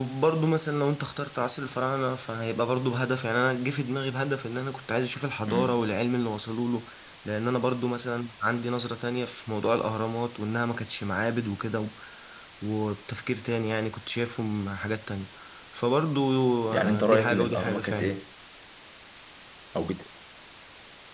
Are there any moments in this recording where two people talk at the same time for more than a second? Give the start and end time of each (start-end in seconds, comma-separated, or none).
16.8-18.2